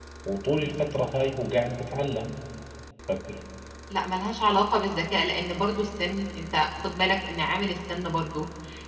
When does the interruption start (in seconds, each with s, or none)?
none